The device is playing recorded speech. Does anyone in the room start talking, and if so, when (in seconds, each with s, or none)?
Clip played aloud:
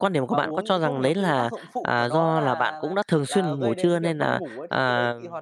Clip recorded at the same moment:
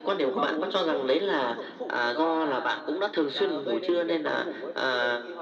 none